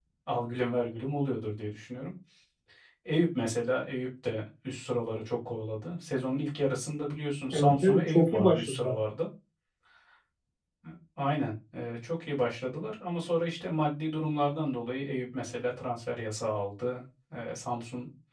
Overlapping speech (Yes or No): Yes